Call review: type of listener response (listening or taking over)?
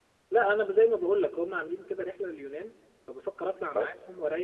listening